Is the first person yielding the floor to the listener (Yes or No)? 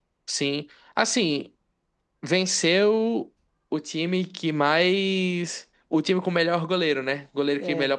No